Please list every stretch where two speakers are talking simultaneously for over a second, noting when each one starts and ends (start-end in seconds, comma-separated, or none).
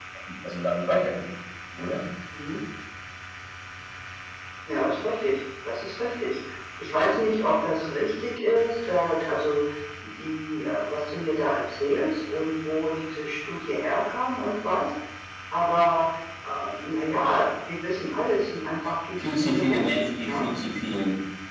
19.2-20.4